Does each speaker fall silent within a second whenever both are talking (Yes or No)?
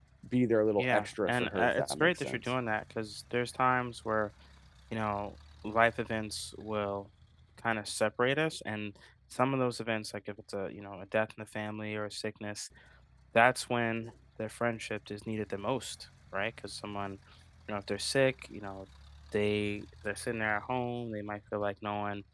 No